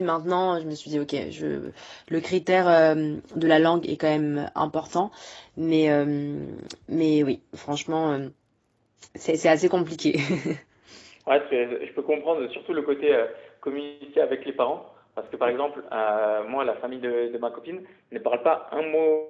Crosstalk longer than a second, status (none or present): none